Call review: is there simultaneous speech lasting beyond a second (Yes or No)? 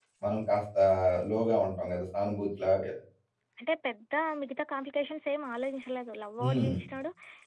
No